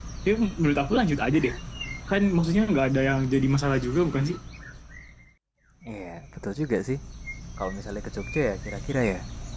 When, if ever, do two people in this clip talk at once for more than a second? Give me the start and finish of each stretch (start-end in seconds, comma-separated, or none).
none